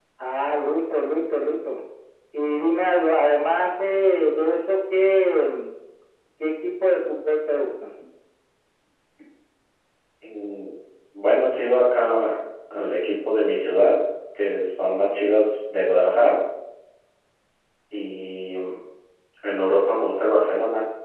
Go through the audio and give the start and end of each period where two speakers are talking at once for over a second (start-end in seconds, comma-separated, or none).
none